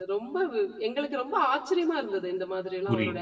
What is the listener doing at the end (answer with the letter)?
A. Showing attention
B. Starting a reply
B